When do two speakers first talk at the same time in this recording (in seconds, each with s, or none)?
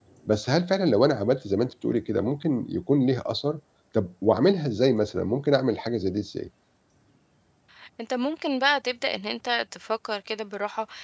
none